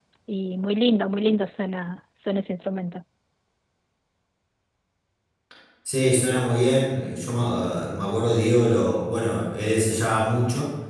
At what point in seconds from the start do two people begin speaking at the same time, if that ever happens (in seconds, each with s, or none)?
none